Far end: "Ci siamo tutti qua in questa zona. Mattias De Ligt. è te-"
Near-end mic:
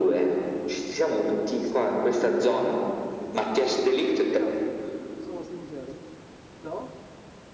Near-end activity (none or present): present